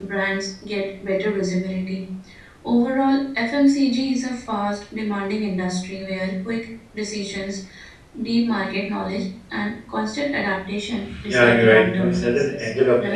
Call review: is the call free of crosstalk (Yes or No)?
No